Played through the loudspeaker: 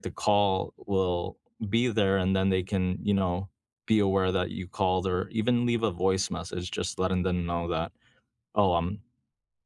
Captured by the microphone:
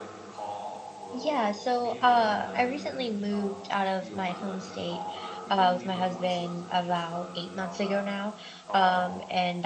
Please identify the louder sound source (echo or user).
user